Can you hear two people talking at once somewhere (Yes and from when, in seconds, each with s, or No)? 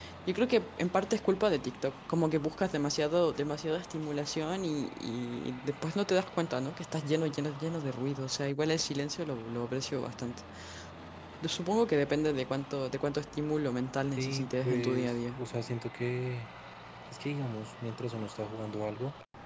Yes, from 14.2 s